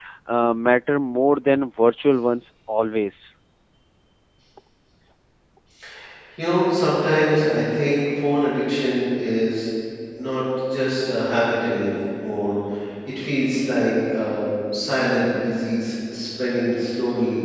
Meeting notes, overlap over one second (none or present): none